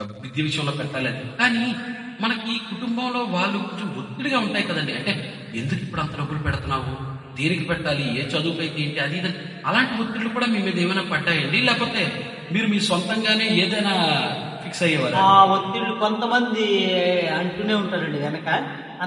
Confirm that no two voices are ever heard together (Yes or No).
Yes